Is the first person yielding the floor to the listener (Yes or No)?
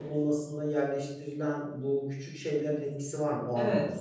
Yes